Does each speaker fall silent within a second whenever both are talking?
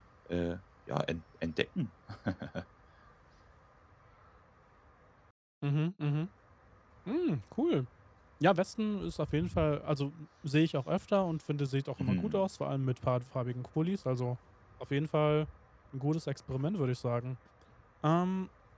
Yes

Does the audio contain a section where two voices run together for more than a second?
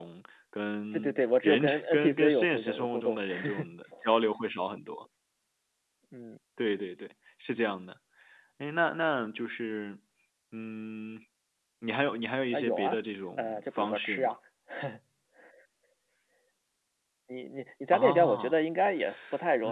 Yes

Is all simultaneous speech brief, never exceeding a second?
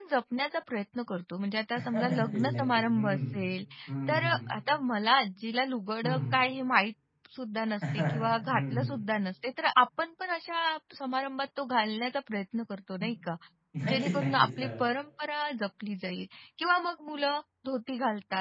No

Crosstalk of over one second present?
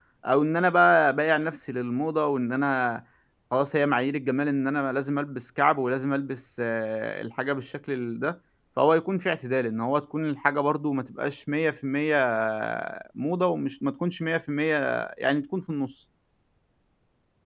No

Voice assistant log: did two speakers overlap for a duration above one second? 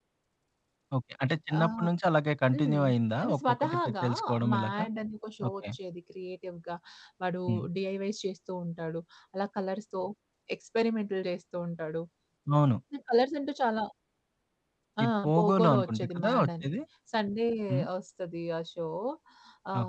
Yes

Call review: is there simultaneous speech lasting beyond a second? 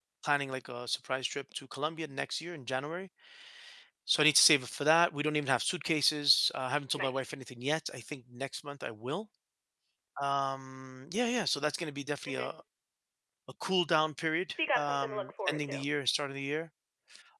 Yes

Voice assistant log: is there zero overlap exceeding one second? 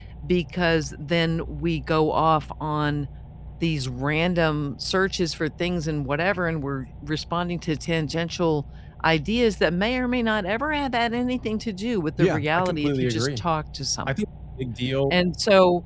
No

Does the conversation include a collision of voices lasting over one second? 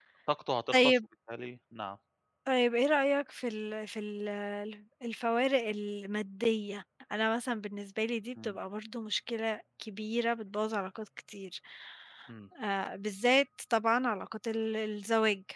No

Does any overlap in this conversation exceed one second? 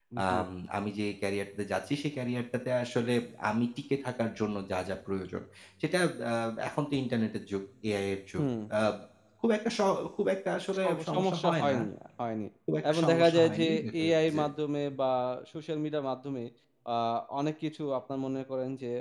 Yes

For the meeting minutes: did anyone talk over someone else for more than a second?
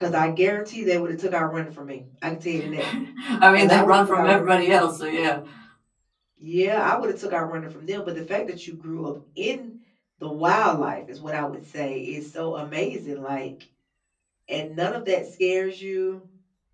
Yes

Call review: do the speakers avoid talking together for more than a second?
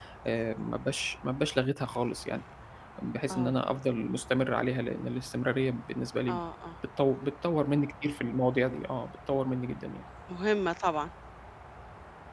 Yes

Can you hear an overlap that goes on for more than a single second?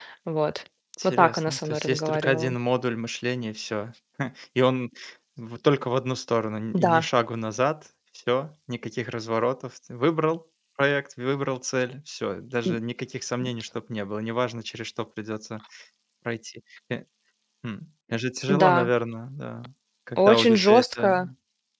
Yes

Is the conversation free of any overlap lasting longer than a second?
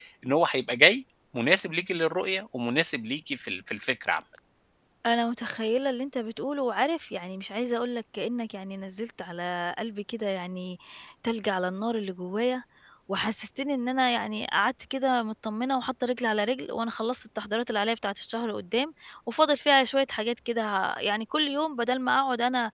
Yes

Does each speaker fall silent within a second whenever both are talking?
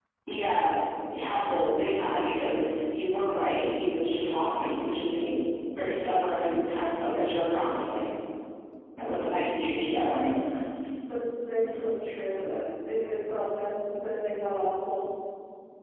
Yes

